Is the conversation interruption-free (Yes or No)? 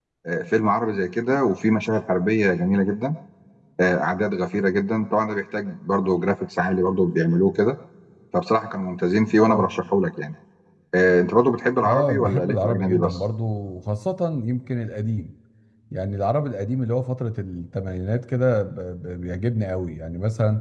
No